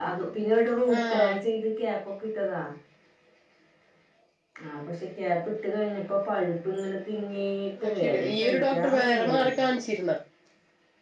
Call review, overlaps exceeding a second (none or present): present